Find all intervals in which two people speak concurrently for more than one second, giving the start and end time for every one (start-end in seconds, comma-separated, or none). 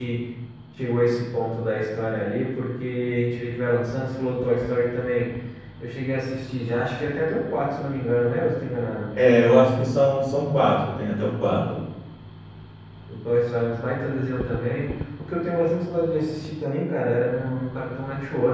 none